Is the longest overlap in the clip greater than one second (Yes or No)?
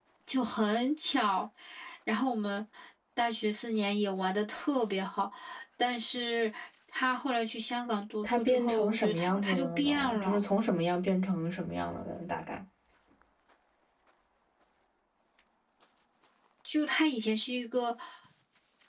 Yes